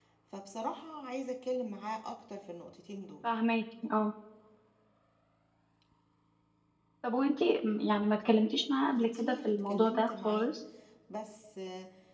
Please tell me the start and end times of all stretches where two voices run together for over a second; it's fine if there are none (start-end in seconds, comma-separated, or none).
9.1-10.5